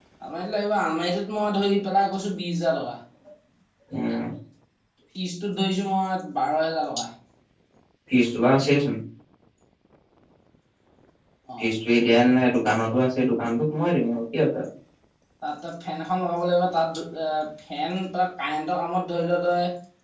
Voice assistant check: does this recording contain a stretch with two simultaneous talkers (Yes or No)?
No